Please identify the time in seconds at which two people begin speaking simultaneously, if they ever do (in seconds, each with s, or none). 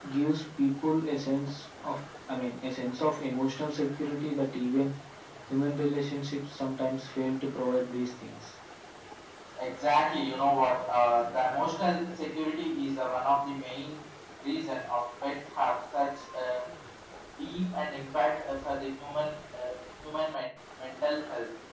none